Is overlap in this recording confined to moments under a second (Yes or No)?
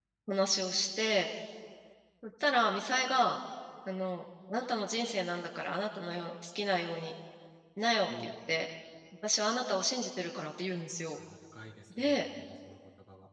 Yes